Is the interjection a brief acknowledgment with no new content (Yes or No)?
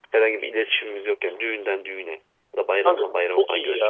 No